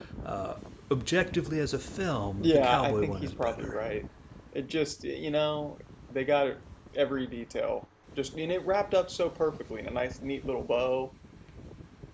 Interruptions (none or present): present